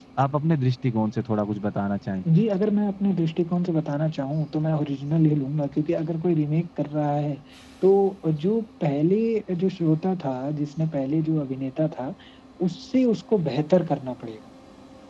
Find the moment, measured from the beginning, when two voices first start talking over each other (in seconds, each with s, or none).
none